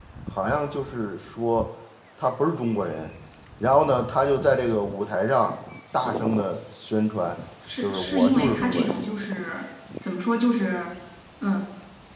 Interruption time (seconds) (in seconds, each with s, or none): 7.8 s